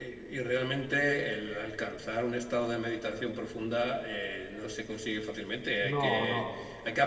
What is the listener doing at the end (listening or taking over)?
listening